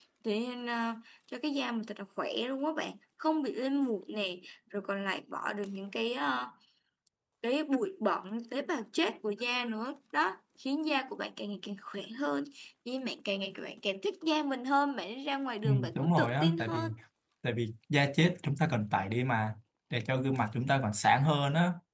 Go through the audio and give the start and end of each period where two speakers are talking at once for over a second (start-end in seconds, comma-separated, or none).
15.6-16.9